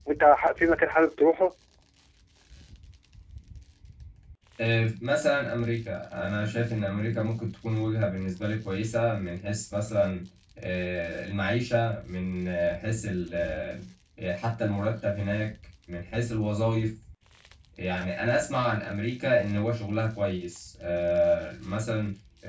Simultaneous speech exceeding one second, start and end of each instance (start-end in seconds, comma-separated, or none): none